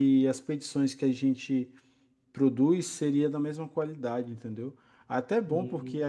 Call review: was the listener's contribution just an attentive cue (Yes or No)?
Yes